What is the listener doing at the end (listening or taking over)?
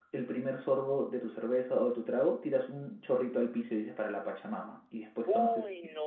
taking over